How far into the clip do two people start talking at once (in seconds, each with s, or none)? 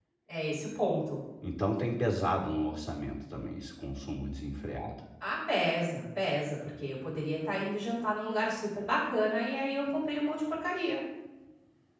none